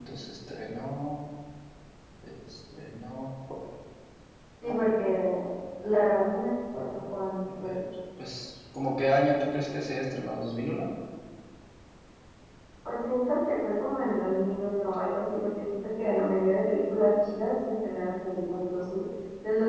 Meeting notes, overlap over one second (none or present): none